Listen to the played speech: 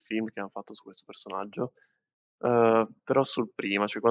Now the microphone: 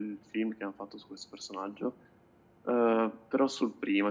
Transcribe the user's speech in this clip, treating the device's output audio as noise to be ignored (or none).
none